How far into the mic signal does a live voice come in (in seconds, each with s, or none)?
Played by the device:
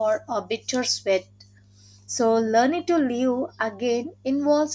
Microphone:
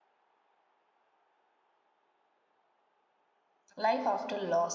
3.8 s